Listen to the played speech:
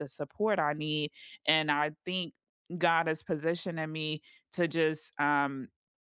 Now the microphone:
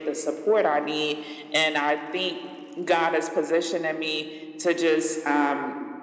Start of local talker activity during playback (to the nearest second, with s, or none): none